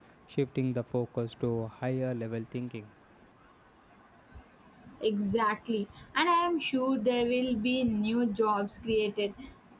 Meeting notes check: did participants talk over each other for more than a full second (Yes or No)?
No